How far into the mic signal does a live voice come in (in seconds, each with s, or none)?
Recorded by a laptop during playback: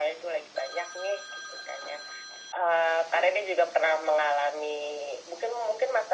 none